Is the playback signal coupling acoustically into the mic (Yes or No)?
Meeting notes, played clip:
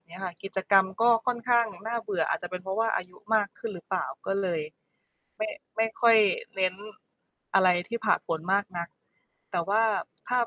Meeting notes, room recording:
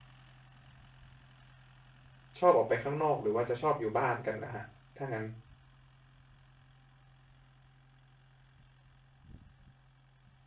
No